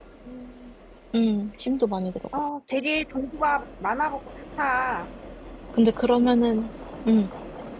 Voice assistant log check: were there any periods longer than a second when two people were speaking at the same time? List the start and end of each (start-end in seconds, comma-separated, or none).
none